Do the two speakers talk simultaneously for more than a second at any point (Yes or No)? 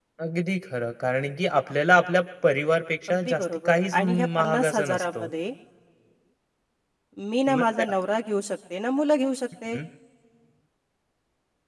Yes